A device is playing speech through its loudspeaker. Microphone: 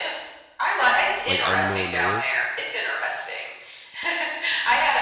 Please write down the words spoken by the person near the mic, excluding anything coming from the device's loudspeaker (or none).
like out in the middle of nowhere?